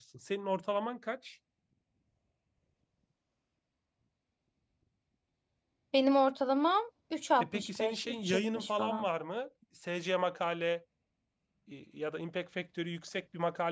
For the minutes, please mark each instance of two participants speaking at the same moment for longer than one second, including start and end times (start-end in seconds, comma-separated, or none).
7.4-9.1